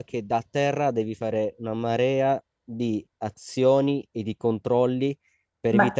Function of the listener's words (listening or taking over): taking over